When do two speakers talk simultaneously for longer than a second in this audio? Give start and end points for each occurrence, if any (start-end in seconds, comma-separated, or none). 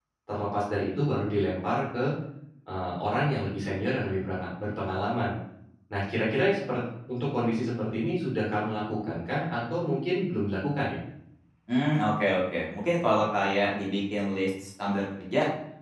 none